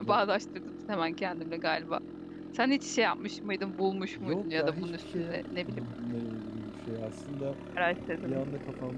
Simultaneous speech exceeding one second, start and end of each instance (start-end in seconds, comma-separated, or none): 4.2-5.9